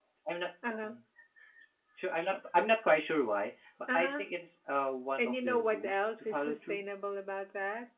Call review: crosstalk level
present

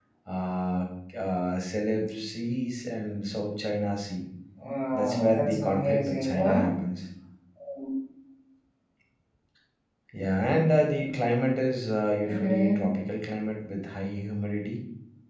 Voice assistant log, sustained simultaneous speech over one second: present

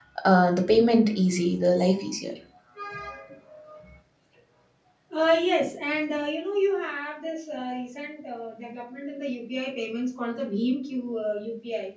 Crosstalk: none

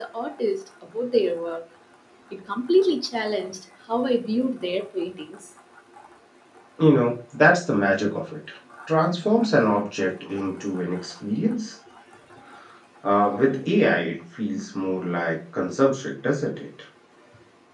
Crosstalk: none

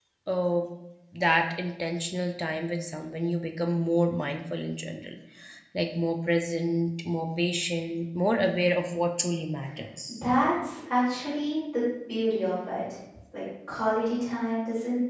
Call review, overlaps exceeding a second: none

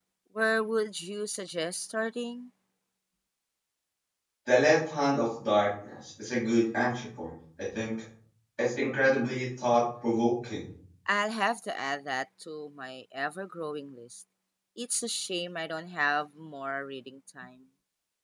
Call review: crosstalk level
none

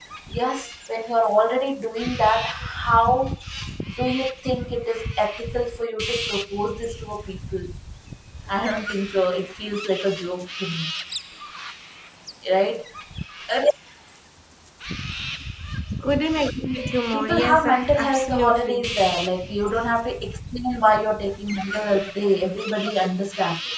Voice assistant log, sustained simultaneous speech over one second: present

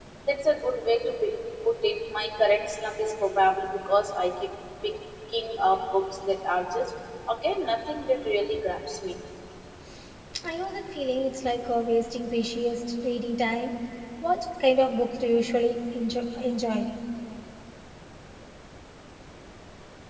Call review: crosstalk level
none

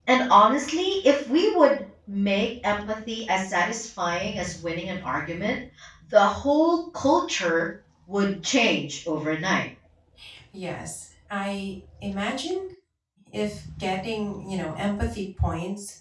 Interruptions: none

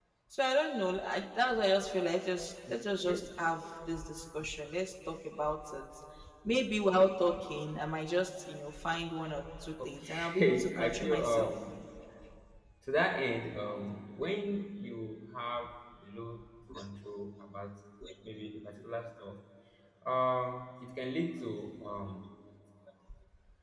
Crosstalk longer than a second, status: present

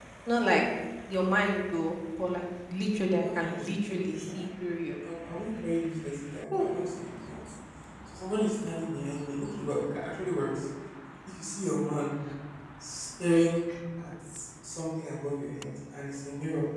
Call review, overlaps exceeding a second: present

